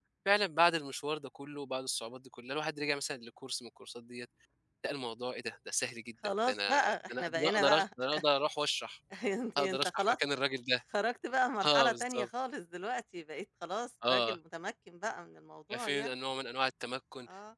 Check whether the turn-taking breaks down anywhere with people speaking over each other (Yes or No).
Yes